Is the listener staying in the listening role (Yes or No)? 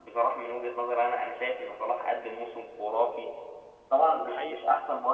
Yes